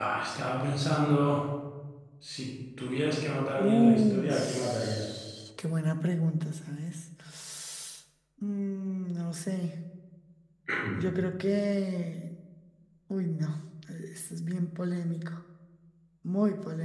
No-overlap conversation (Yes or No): No